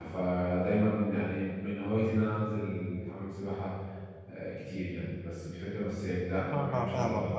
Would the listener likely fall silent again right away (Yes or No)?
No